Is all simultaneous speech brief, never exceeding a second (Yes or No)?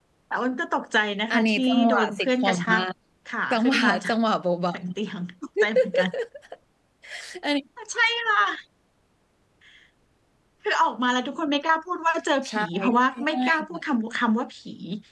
No